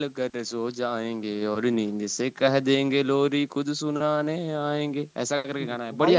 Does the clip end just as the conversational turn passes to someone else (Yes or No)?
Yes